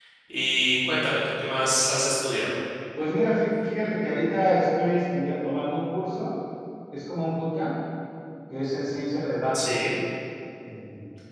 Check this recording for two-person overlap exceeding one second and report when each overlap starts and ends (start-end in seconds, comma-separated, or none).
none